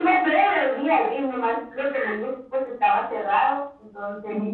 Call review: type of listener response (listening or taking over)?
taking over